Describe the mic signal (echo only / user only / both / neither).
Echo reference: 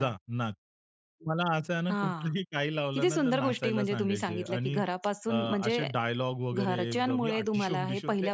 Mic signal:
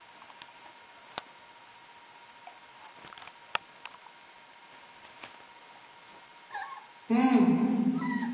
user only